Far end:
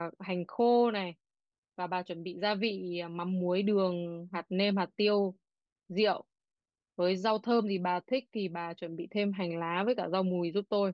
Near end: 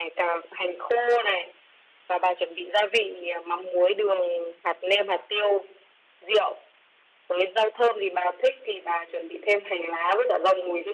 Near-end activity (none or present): none